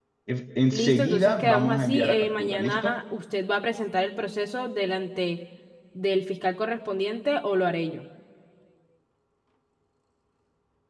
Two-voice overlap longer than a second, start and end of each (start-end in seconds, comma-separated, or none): 0.7-2.9